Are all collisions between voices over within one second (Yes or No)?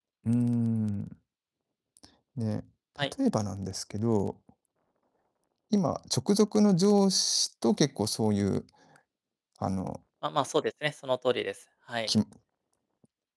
Yes